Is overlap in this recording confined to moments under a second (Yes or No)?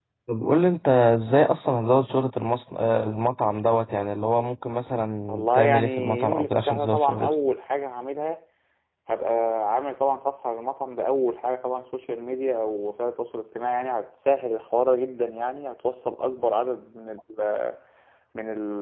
No